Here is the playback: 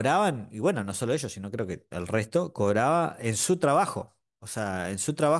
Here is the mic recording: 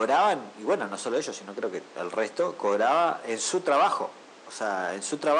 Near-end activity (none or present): none